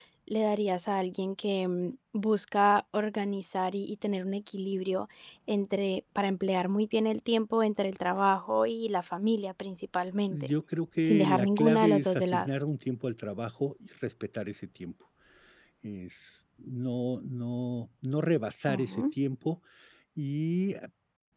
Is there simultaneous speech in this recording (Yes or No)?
Yes